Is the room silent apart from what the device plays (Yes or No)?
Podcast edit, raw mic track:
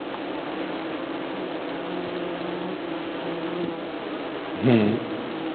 No